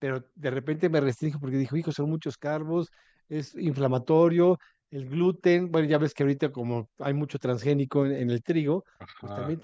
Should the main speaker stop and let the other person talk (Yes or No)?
No